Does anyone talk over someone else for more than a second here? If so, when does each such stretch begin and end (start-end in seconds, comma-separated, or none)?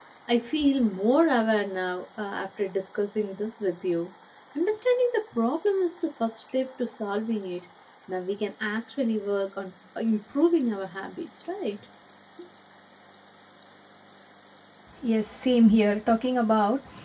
none